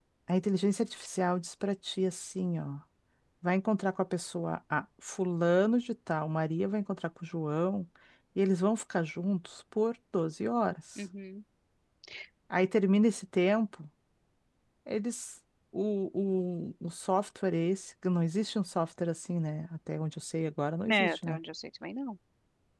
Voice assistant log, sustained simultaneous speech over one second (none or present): none